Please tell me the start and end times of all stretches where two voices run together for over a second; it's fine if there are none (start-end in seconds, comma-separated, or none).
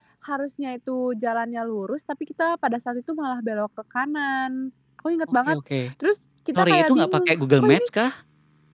6.6-7.9